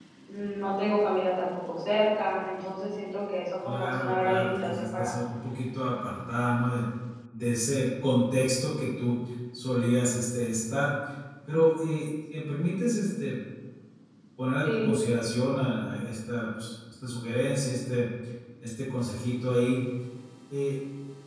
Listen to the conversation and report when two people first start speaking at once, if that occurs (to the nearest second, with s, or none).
4 s